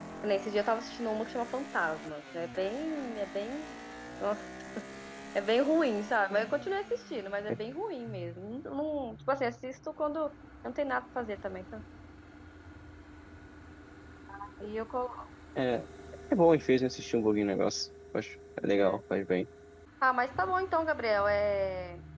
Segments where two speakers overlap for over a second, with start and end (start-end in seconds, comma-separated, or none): none